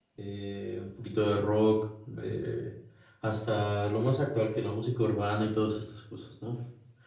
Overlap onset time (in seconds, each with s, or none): none